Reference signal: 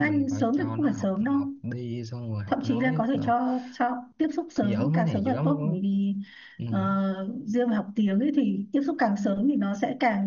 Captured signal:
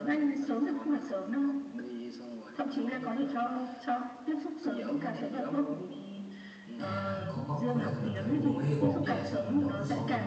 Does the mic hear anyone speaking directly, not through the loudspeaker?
Yes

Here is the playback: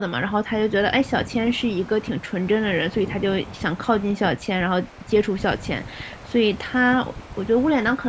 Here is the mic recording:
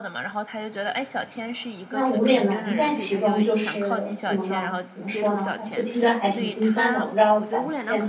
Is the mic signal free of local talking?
No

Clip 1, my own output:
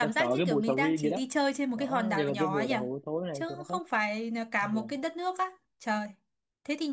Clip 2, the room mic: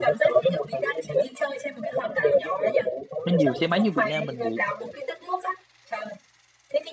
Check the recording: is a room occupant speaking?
Yes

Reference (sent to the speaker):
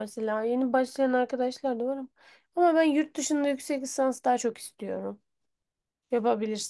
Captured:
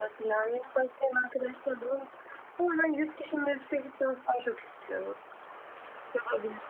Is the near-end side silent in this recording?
Yes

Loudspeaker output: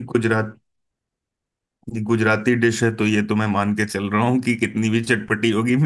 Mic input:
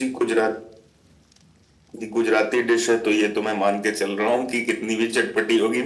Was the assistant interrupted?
No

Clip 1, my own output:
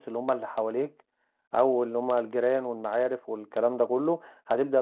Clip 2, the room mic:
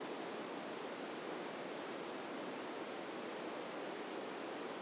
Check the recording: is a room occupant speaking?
No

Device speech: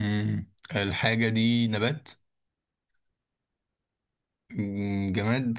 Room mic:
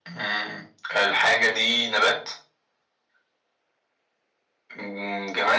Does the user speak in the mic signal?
No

